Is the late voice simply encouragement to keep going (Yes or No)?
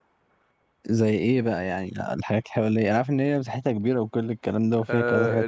No